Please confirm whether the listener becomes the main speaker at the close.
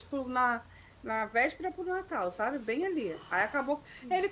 No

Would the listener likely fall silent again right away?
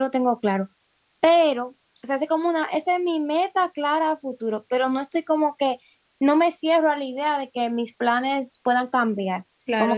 No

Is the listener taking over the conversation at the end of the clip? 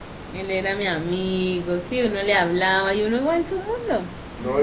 Yes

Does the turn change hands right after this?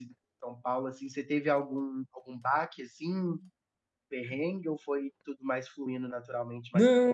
Yes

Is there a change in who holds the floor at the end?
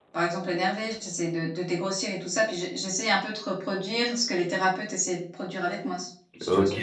Yes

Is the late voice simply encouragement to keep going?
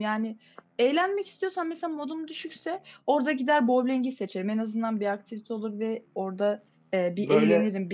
Yes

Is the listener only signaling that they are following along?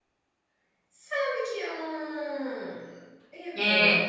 No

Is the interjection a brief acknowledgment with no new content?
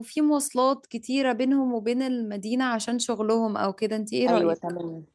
No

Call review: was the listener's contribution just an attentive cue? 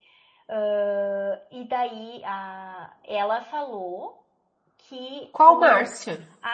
Yes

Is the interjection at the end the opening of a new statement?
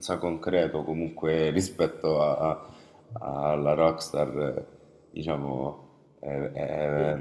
No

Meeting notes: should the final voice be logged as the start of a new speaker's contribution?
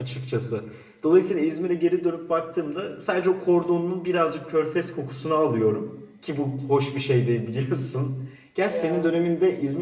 No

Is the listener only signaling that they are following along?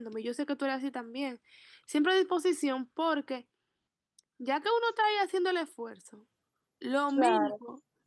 Yes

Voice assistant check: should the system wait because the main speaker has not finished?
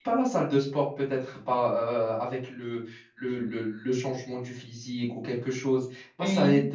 Yes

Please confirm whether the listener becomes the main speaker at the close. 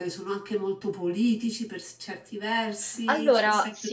No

